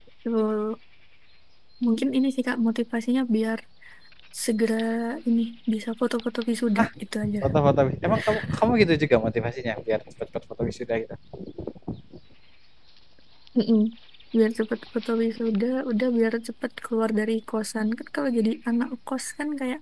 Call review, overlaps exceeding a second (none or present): none